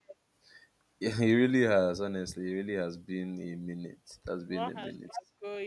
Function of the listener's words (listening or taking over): taking over